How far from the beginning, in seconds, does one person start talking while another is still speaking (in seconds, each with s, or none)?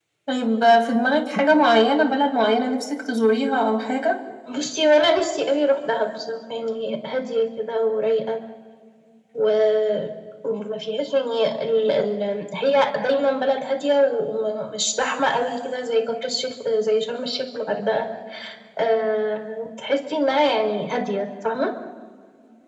none